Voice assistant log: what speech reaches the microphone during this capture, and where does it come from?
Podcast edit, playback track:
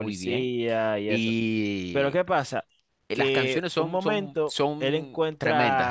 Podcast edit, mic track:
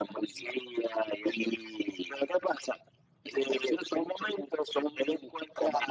echo only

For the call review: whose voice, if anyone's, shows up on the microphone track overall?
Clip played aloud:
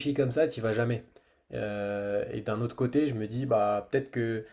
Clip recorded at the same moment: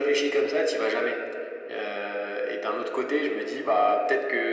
echo only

